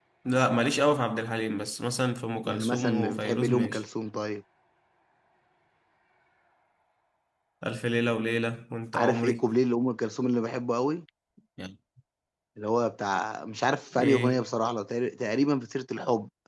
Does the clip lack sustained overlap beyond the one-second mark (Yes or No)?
No